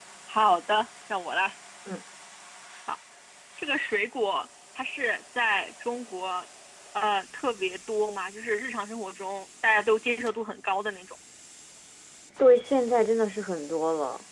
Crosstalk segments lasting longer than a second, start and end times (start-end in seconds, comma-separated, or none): none